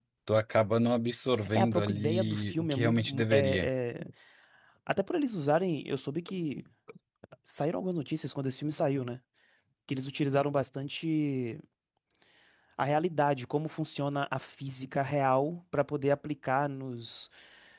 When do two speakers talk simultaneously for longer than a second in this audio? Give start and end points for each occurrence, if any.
1.6-3.7

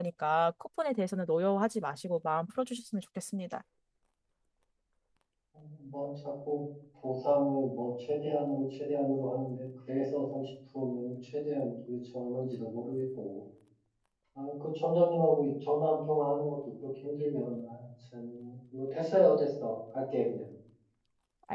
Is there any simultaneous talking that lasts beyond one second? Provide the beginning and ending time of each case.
none

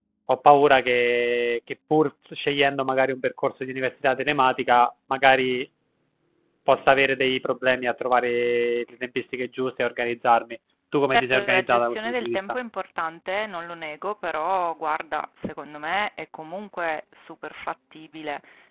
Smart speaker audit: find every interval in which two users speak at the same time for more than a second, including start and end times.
11.1-12.4

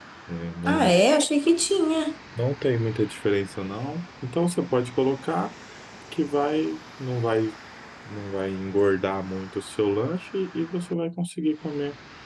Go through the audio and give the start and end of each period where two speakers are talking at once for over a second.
none

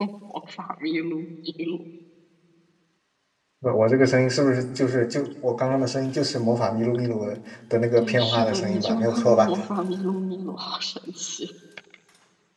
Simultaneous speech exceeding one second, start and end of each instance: 8.0-9.5

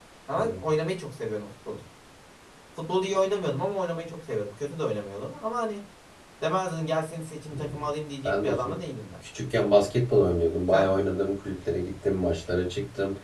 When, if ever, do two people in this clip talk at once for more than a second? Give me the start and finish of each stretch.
none

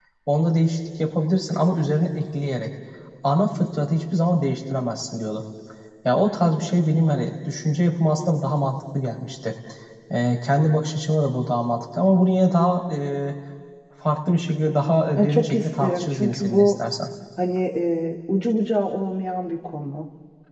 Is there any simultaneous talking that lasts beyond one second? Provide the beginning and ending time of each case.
15.2-16.7

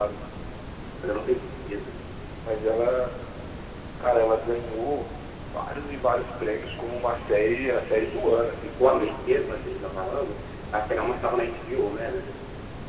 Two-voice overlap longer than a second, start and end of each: 7.8-9.1

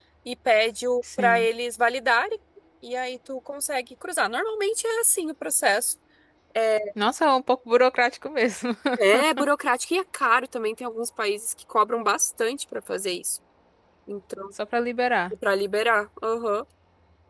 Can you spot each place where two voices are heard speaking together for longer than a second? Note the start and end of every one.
none

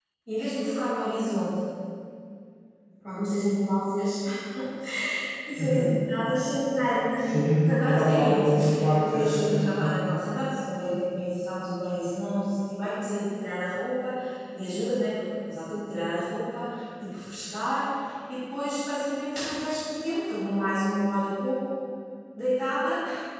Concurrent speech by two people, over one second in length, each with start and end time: 7.9-10.0

